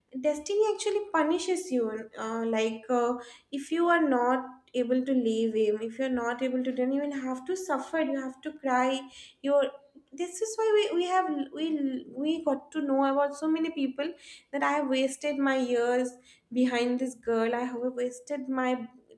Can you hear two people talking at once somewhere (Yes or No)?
No